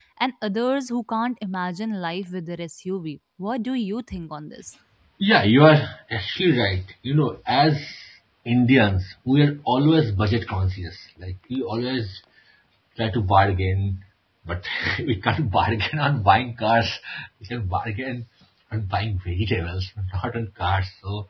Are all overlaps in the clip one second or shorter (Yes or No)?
Yes